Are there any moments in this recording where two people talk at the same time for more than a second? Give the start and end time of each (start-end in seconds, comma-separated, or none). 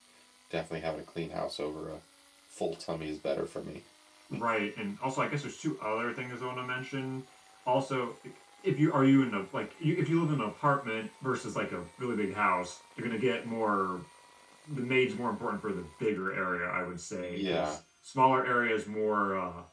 none